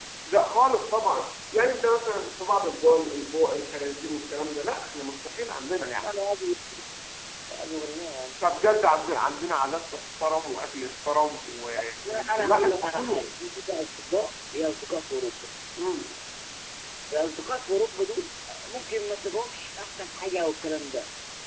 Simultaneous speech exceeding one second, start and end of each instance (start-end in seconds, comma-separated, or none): 12.1-13.3